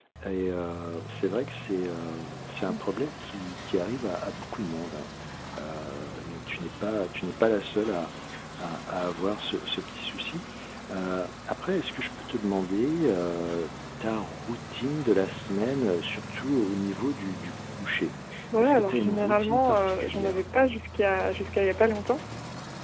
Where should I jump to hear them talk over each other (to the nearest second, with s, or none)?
19 s